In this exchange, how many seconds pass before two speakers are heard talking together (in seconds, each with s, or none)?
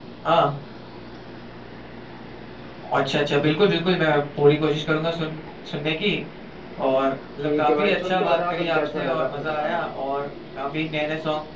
7.4 s